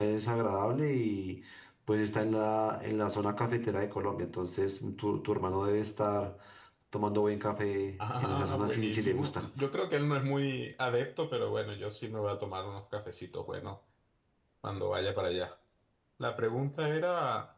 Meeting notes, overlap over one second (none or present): present